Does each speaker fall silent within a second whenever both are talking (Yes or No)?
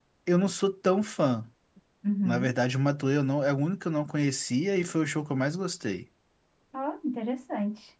Yes